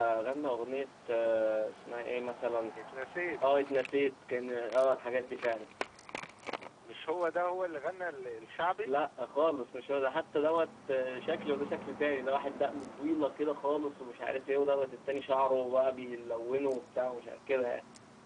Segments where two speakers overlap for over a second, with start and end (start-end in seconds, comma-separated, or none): none